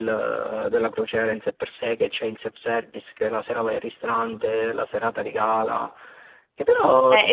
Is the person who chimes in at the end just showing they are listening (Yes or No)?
No